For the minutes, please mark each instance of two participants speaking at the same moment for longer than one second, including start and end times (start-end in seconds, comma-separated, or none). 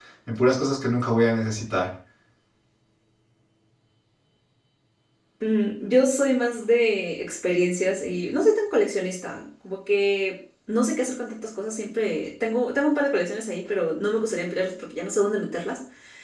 none